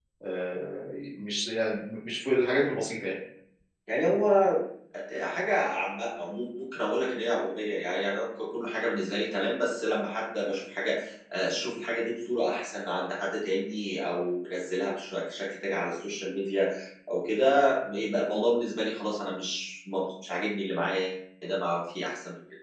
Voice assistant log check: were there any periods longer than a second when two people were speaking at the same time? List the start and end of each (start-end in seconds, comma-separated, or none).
none